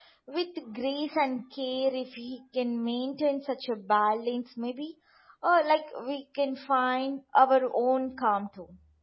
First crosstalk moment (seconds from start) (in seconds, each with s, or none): none